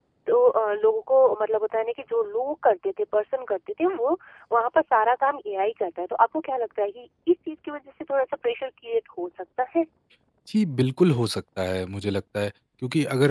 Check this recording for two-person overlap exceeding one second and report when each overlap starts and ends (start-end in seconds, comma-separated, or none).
none